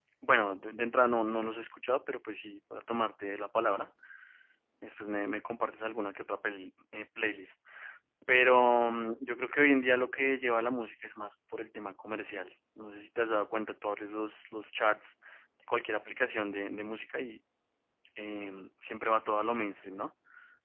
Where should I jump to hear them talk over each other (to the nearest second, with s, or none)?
none